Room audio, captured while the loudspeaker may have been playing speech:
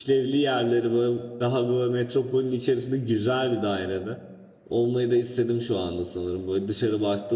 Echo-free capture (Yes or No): Yes